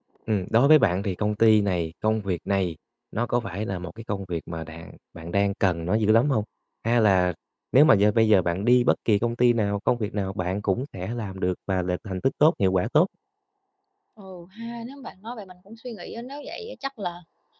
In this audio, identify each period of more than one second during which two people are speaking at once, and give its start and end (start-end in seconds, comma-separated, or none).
none